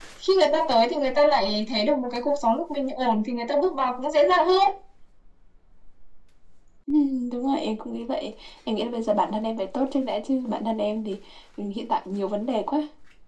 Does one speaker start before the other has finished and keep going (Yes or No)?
No